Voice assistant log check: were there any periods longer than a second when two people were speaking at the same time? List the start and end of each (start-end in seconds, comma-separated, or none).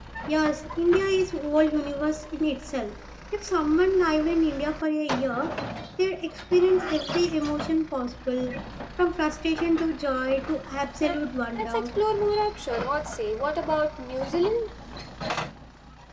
none